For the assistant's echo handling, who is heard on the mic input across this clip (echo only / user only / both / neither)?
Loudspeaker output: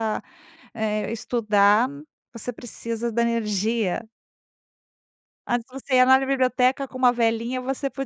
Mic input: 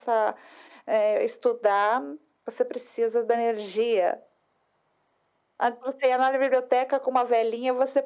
echo only